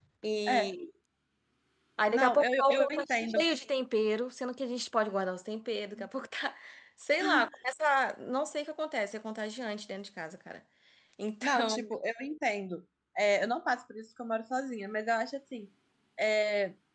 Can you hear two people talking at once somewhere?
Yes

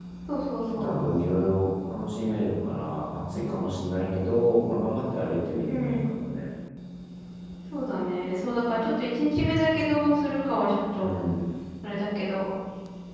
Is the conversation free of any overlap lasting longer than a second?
Yes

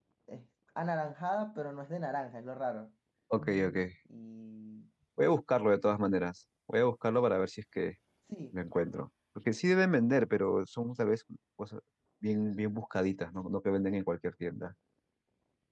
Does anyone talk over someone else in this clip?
No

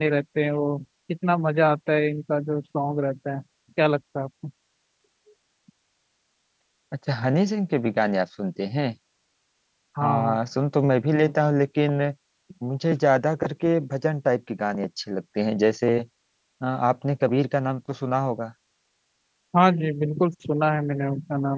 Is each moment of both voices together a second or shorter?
Yes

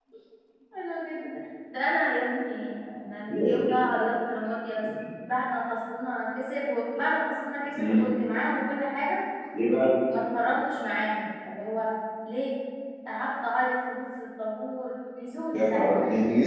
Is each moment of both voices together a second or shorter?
Yes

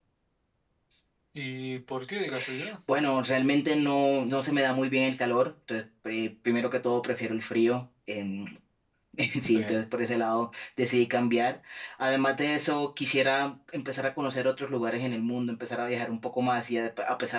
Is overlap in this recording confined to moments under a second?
Yes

